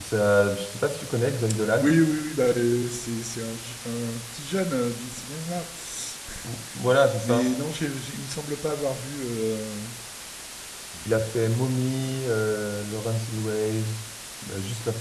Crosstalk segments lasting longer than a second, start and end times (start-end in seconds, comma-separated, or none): none